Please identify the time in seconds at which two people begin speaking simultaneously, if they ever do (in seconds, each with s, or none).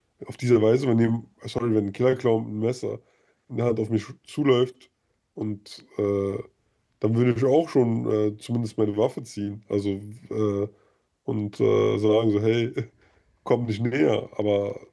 none